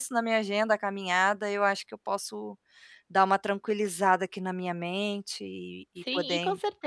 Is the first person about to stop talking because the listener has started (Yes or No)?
Yes